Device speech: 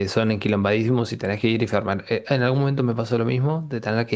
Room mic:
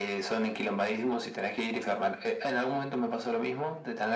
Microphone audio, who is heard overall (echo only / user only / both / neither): echo only